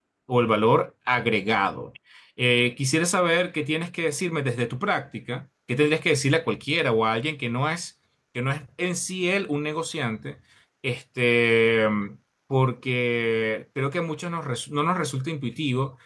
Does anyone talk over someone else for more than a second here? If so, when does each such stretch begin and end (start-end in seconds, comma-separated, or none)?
none